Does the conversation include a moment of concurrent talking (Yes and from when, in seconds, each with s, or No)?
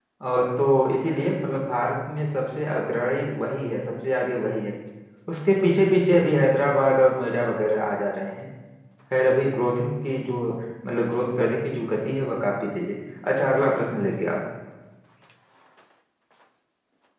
No